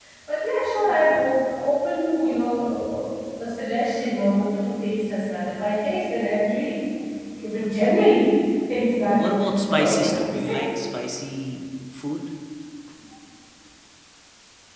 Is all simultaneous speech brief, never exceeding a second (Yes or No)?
No